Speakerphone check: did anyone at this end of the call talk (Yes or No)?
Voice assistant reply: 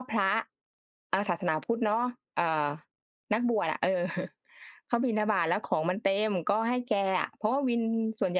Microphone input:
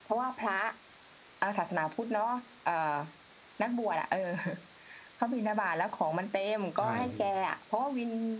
Yes